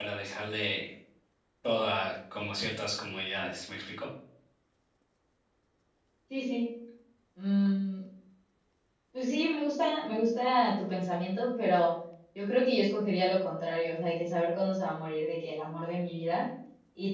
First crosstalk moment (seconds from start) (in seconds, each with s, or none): none